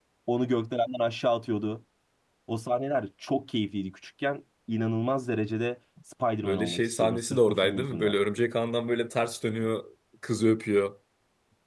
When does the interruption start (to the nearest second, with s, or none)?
6 s